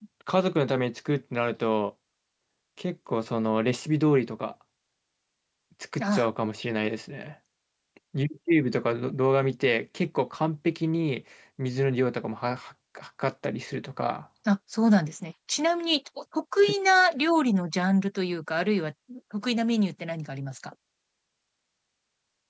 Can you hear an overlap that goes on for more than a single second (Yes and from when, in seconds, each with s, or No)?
No